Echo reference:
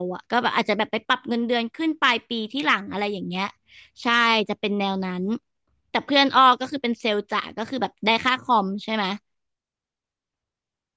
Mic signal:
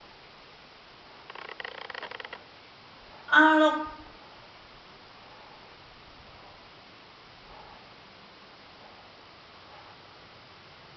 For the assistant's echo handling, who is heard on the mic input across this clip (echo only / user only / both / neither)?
user only